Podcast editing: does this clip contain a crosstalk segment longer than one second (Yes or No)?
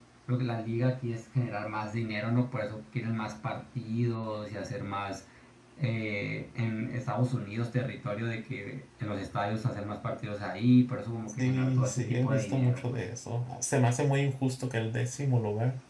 Yes